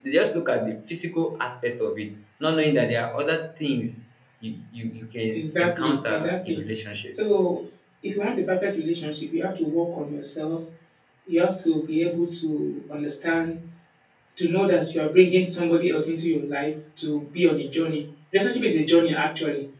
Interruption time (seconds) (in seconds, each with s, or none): 5.3 s